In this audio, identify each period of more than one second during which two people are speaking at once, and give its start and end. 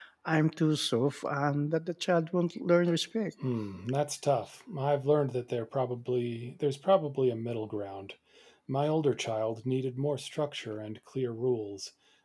none

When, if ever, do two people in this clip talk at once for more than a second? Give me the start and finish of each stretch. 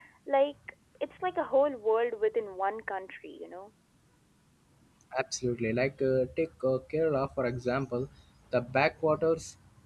none

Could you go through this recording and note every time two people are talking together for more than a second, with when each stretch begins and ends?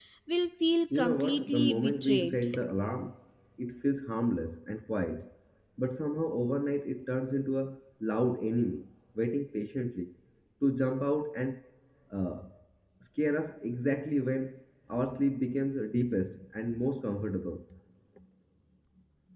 0.9-2.5

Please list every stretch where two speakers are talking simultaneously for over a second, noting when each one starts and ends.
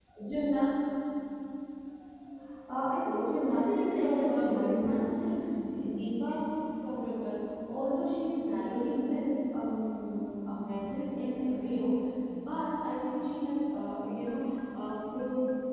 3.0-5.5

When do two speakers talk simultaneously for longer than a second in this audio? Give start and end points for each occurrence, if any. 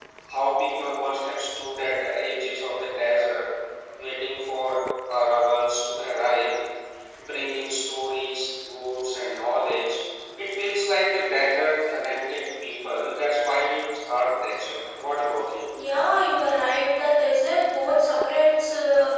none

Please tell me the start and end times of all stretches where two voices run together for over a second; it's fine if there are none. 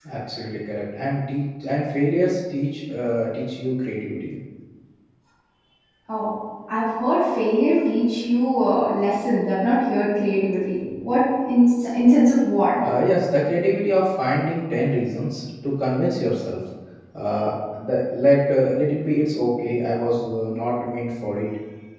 none

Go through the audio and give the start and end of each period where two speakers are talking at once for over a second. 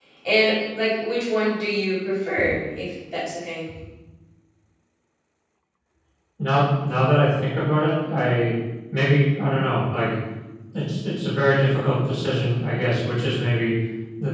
none

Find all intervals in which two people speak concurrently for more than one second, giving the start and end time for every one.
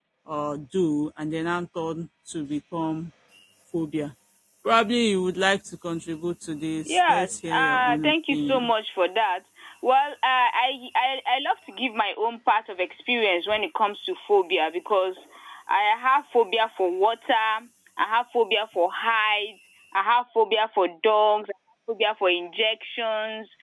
6.8-8.7

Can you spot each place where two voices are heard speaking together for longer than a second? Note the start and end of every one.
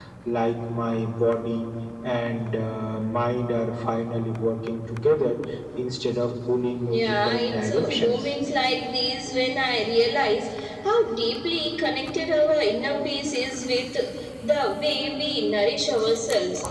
6.8-8.3

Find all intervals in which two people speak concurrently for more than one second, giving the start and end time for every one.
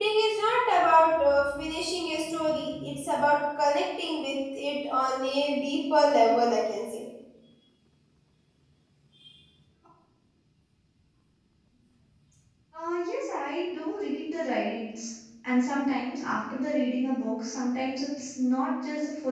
none

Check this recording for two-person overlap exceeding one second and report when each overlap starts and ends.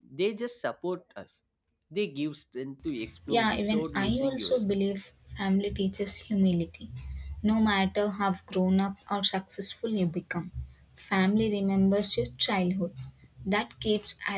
3.3-4.7

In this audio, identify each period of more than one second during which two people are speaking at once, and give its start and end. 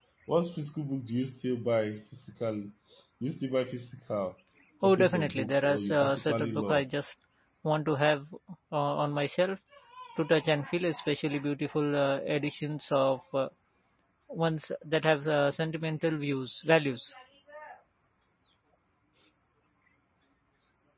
4.8-6.9

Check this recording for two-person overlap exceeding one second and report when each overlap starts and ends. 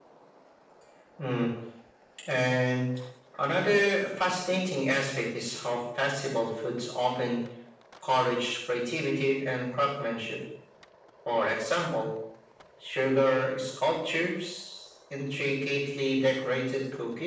none

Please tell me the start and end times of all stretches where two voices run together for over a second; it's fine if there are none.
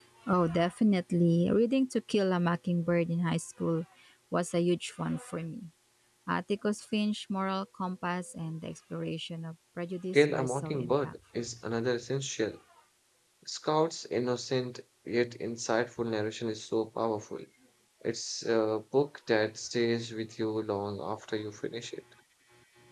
10.1-11.5

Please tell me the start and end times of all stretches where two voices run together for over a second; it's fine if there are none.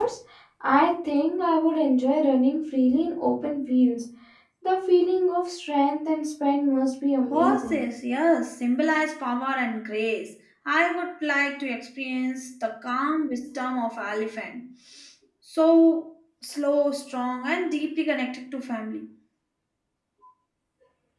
none

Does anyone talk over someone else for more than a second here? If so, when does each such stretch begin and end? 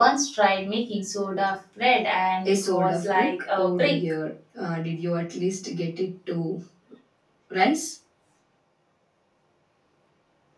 2.4-4.0

